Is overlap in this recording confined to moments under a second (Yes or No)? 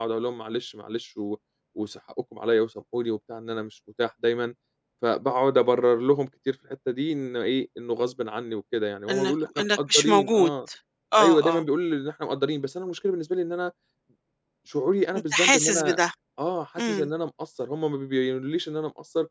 No